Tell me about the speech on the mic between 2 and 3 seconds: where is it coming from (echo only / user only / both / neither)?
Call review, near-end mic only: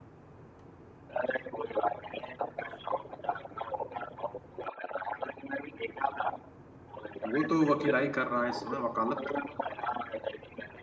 echo only